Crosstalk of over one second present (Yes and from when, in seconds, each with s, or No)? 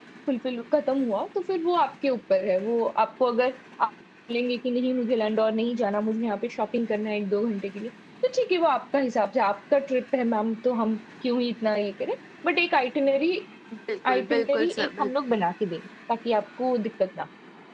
Yes, from 14.1 s